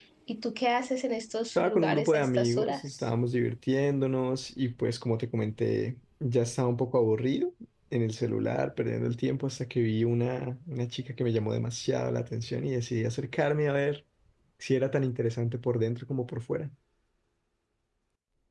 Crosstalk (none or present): present